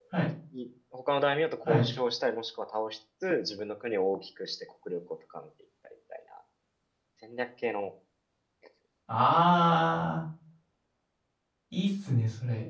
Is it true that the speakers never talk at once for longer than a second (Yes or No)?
Yes